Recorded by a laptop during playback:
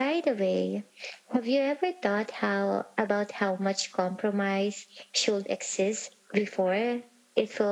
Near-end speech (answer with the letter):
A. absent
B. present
A